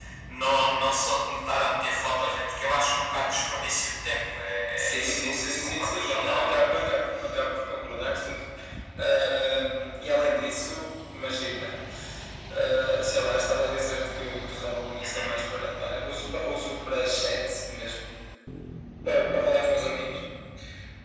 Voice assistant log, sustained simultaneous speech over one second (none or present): present